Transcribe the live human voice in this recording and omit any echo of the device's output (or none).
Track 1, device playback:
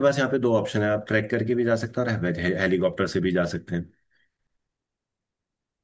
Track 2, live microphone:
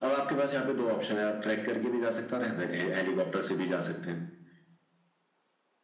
none